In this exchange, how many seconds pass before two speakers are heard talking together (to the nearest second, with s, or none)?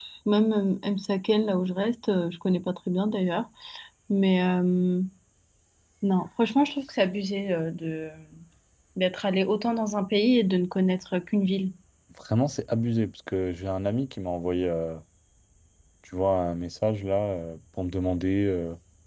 none